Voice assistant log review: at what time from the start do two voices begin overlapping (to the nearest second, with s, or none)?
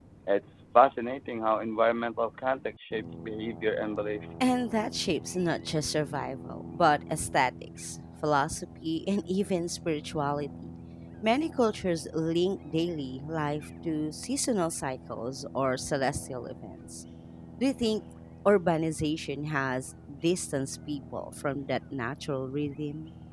none